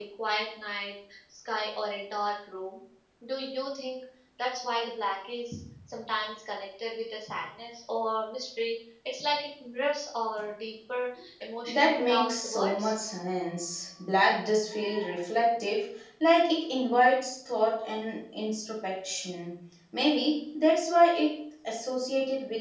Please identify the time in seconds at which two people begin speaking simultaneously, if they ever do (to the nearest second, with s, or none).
12 s